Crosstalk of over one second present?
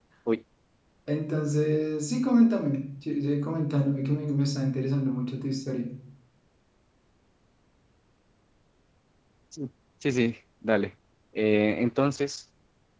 No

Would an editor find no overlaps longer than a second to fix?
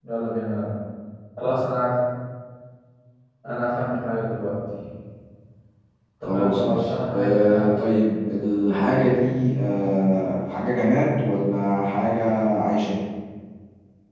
No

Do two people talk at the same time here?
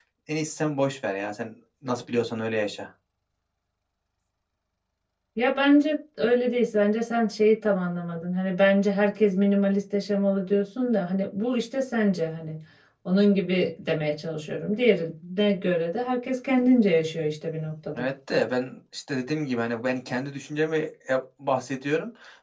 No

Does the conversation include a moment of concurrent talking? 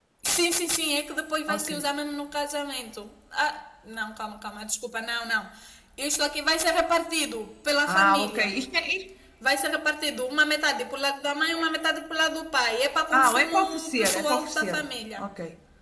Yes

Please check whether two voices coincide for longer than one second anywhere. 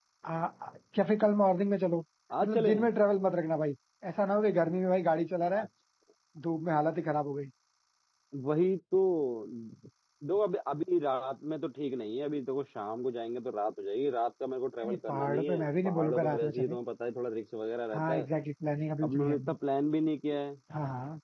Yes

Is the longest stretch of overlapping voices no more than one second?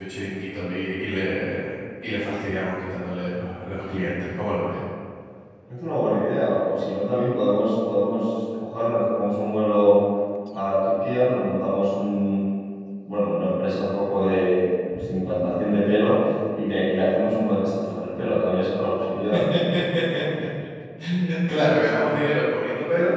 Yes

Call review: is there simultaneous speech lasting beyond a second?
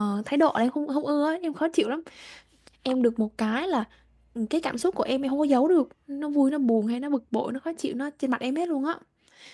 No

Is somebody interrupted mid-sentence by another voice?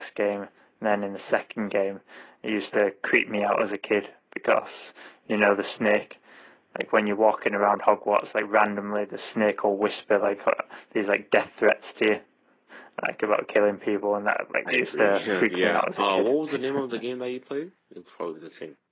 Yes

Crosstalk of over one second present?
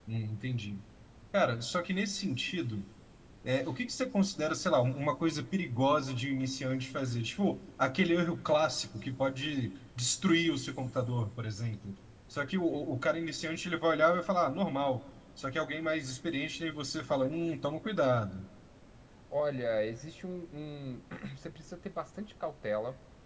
No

